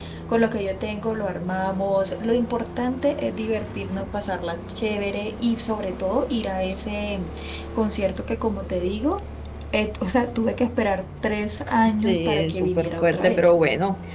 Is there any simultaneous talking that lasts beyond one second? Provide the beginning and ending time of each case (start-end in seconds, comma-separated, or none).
12.0-13.6